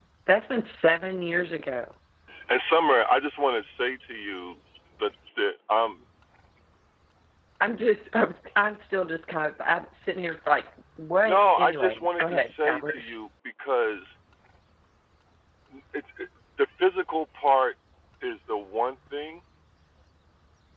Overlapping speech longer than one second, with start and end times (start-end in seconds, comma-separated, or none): 11.2-13.0